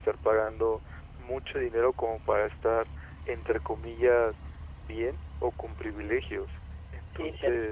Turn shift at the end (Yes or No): Yes